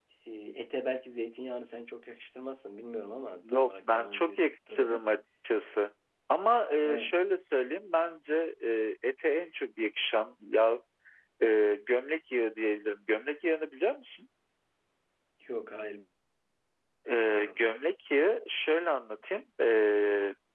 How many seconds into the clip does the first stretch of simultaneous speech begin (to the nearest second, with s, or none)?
3 s